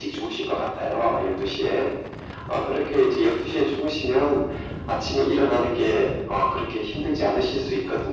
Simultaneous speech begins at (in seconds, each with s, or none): none